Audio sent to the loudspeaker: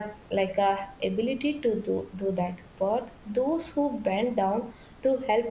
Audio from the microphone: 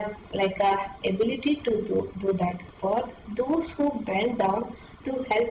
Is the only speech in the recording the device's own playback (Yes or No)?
Yes